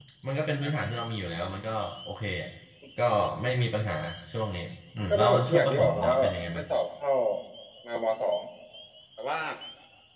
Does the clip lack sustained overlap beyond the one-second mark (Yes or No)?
No